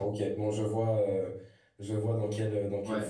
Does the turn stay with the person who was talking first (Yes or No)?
No